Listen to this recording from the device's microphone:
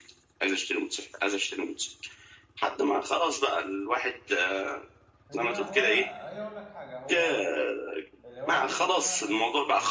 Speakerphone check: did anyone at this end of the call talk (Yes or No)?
Yes